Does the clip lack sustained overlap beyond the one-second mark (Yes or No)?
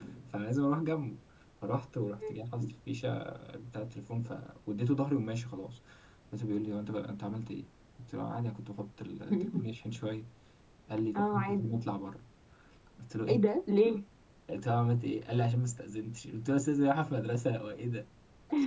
Yes